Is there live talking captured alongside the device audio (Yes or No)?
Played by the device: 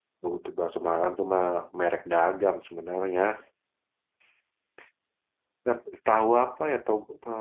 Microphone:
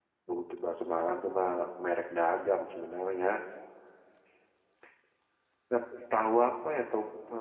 No